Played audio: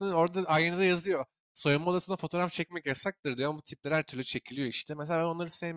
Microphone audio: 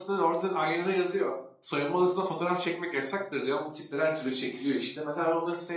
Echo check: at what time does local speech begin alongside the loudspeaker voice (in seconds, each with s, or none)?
none